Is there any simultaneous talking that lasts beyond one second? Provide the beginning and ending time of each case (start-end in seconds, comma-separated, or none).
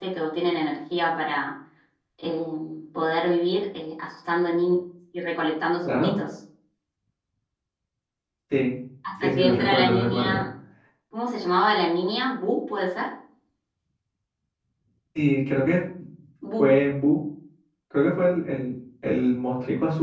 9.2-10.4